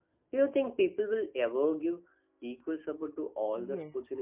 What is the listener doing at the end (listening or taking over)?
taking over